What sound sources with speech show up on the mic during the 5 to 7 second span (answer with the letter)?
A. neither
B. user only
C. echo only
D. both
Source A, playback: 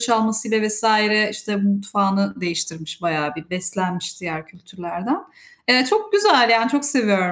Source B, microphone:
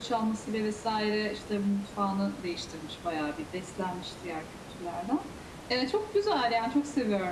C